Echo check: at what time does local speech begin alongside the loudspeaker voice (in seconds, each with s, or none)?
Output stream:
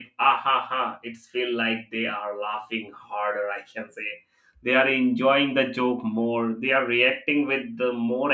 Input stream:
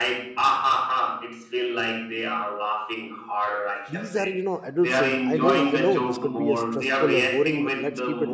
3.9 s